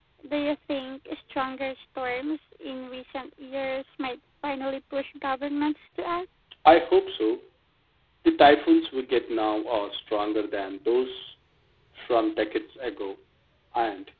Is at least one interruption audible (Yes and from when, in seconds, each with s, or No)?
No